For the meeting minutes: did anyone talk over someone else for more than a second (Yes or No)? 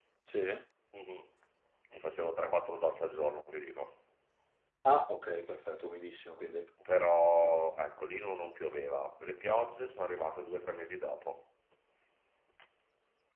No